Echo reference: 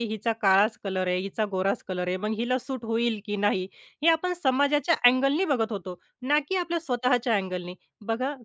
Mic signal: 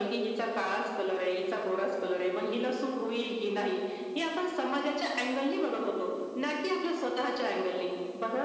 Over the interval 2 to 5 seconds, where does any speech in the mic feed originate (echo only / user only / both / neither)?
echo only